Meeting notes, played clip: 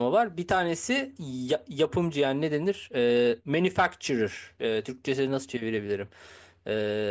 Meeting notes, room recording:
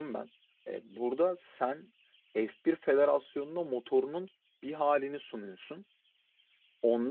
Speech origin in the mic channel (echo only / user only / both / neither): user only